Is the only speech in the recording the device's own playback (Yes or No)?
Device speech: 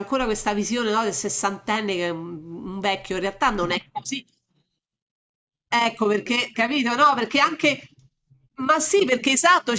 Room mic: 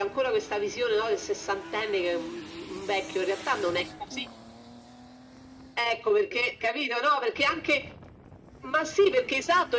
Yes